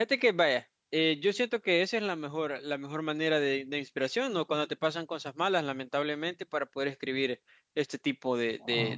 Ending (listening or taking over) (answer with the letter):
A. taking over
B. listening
B